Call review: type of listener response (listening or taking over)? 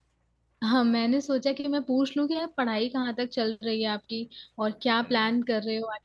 listening